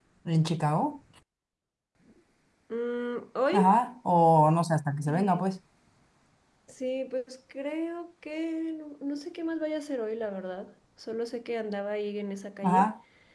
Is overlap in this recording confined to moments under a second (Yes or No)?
Yes